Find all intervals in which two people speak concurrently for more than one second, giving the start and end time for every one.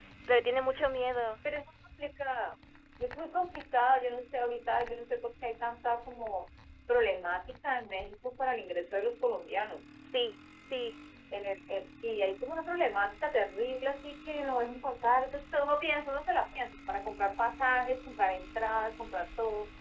none

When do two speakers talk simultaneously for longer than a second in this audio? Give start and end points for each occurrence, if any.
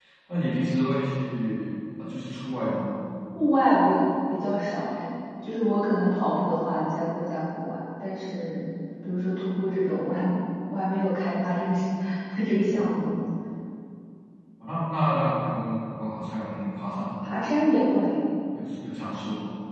none

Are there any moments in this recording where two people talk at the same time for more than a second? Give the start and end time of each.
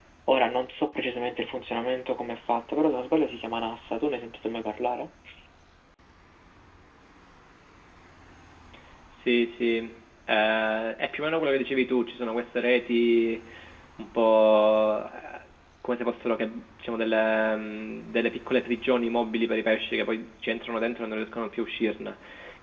none

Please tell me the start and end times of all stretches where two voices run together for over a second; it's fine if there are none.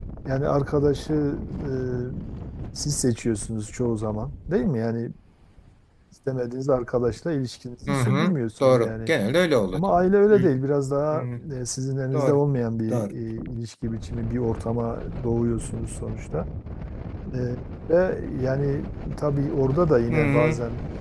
7.9-9.1

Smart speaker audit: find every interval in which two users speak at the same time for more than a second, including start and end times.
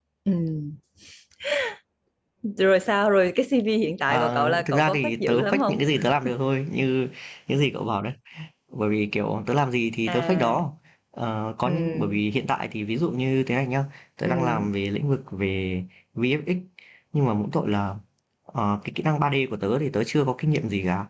4.1-5.8

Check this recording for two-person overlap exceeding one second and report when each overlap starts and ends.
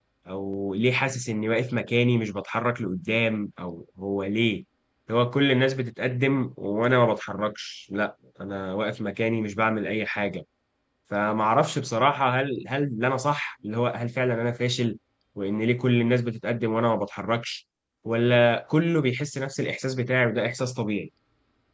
none

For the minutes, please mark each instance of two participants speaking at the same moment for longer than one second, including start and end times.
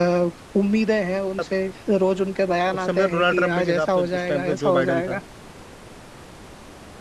2.8-5.2

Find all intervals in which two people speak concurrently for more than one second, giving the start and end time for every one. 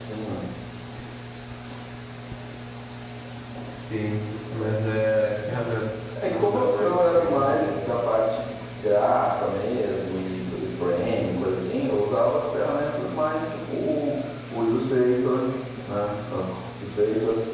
6.3-7.7

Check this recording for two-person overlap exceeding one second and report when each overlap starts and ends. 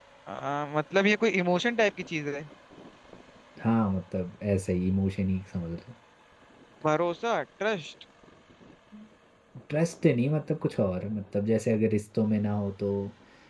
none

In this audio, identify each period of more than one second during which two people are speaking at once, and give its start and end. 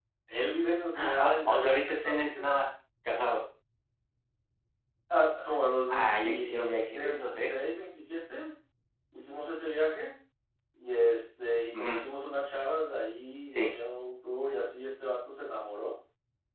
0.9-2.5, 5.9-7.5

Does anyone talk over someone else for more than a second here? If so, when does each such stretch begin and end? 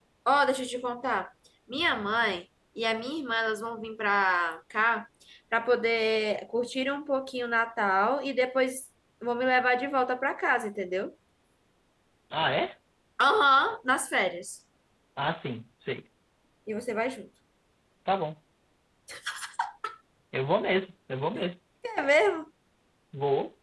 none

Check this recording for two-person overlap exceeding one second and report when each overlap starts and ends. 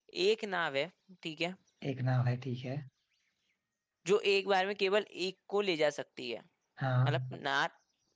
none

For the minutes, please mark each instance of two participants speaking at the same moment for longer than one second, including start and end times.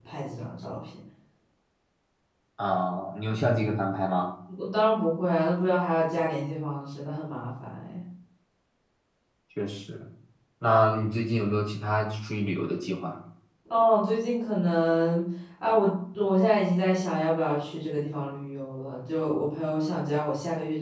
none

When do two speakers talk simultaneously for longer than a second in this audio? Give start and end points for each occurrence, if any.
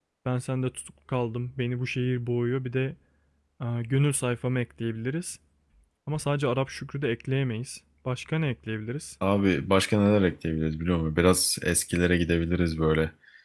none

